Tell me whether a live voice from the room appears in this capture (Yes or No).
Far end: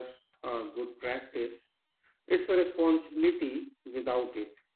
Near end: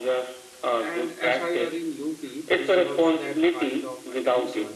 Yes